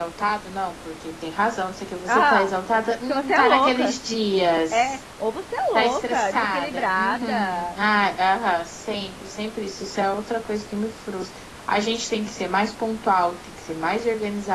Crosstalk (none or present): present